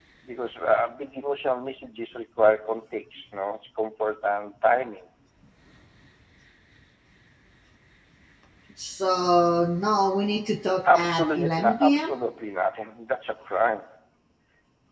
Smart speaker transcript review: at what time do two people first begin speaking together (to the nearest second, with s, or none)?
11 s